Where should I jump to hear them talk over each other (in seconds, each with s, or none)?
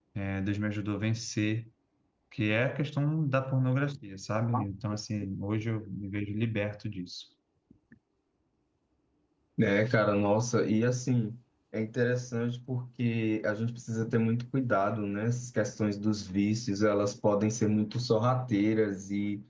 none